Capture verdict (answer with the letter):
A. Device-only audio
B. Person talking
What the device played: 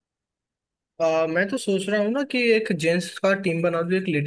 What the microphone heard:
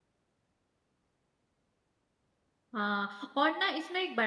B